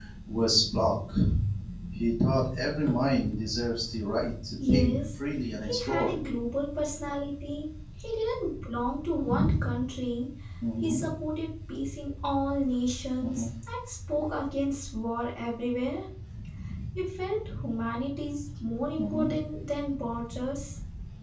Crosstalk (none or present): present